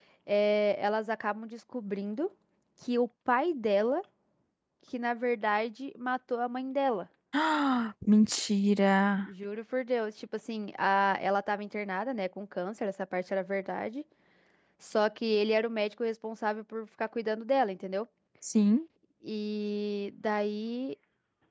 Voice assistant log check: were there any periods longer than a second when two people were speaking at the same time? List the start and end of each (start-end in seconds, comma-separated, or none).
none